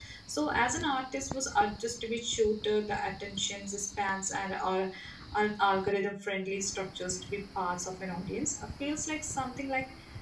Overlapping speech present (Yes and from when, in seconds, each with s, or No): No